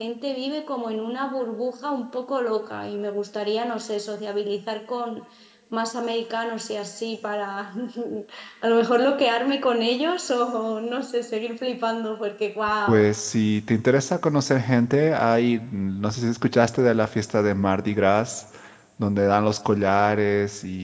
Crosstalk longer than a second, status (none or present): none